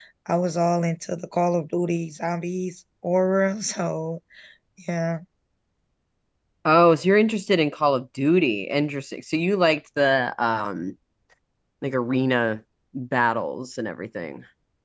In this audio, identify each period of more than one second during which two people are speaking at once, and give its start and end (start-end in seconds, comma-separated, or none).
none